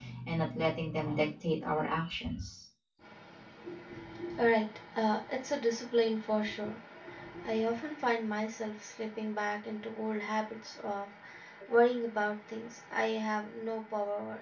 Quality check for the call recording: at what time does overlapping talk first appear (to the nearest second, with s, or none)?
none